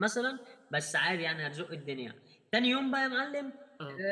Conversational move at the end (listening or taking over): listening